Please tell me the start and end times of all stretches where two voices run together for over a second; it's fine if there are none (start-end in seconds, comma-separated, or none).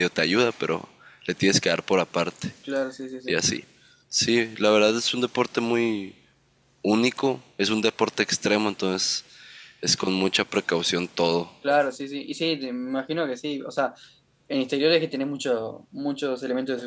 none